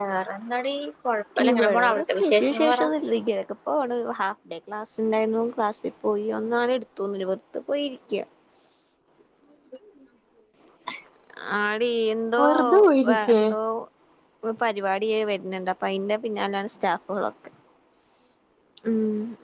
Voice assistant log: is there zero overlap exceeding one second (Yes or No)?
No